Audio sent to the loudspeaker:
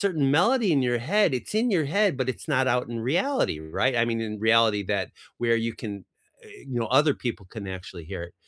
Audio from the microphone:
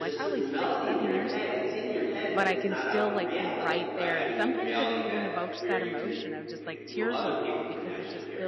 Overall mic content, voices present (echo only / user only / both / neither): both